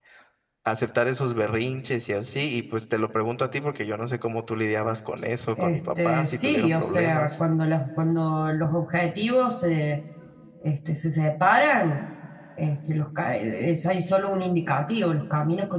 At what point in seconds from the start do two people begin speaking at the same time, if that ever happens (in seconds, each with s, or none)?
5.6 s